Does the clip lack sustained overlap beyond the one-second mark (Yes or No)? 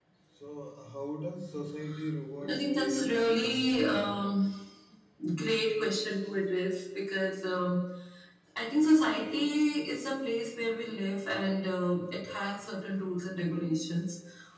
No